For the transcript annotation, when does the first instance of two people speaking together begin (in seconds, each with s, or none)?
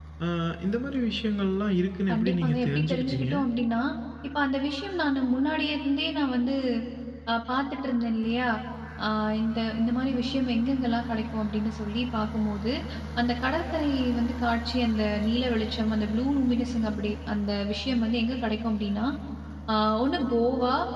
2.1 s